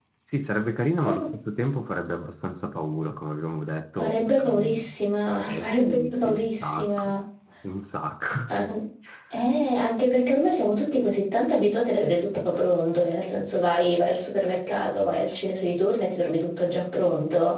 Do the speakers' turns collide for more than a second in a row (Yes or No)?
Yes